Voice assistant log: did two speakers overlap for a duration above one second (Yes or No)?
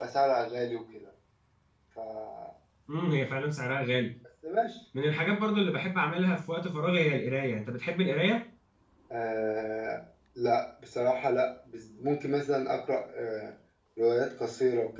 No